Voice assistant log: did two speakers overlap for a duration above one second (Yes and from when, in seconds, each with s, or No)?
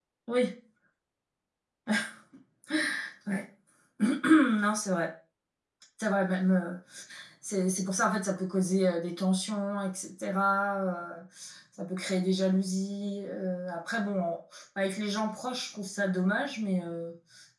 No